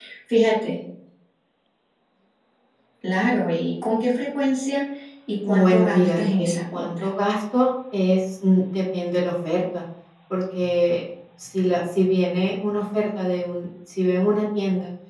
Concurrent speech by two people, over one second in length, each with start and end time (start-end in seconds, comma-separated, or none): 5.4-7.1